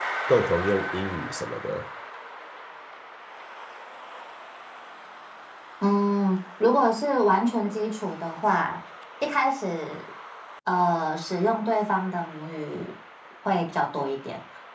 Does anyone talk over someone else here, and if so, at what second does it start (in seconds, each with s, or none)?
none